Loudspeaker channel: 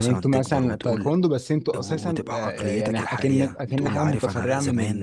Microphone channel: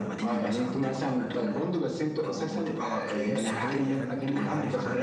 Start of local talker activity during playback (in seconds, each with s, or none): 3.2 s